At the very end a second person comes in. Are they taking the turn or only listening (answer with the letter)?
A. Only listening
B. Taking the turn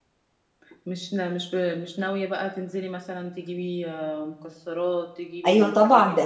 B